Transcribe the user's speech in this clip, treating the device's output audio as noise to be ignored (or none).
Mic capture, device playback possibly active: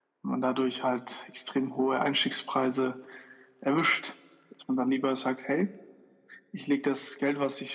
none